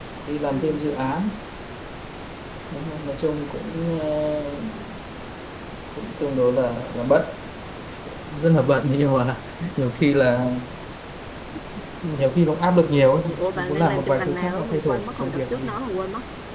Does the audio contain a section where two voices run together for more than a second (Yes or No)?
Yes